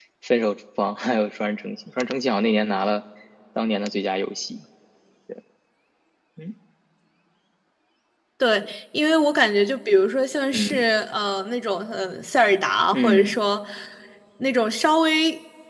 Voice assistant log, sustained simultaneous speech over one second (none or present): none